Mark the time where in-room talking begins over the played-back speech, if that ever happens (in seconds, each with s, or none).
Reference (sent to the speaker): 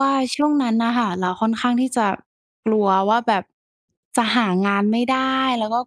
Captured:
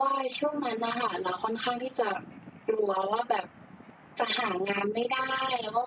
none